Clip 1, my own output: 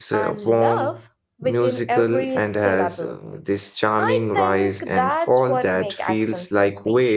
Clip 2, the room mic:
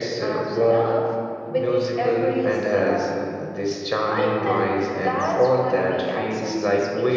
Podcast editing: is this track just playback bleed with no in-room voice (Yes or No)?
Yes